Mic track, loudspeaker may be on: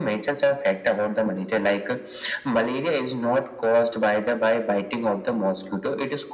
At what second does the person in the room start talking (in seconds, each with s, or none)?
none